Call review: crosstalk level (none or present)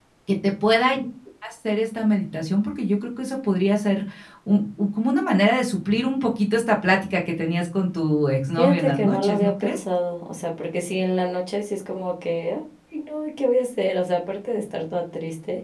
present